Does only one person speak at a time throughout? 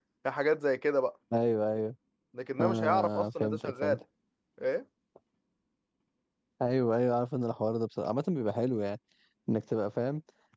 No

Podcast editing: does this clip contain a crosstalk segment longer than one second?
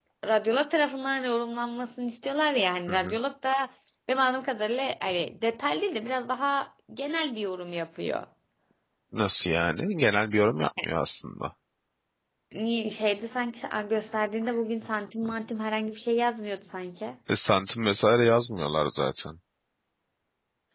No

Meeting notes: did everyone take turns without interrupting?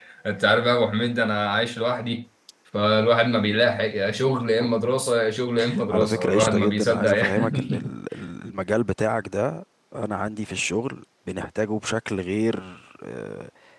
No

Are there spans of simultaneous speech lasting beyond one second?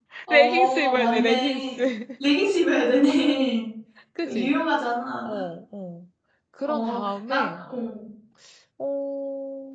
Yes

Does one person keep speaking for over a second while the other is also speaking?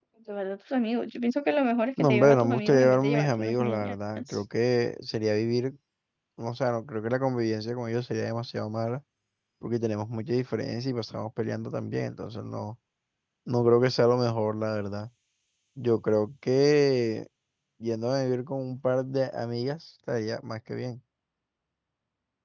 Yes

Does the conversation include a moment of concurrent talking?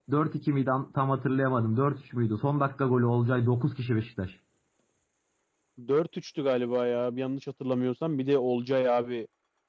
No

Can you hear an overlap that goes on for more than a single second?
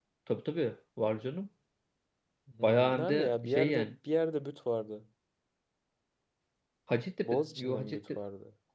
Yes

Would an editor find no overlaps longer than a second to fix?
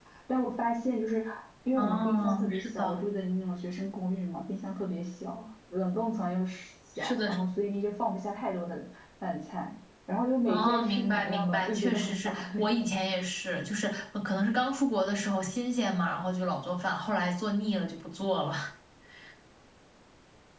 No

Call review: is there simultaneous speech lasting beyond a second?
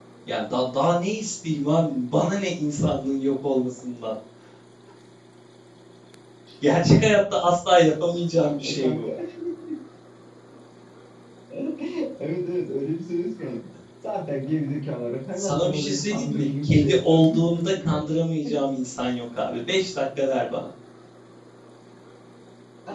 Yes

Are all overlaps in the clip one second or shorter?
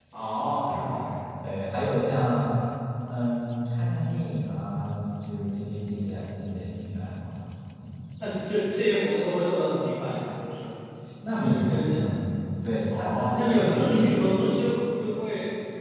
No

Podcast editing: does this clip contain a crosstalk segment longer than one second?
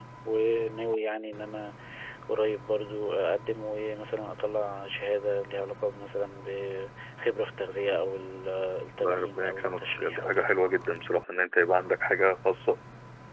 Yes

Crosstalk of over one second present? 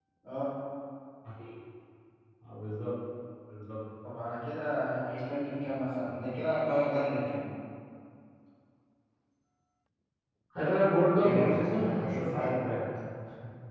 Yes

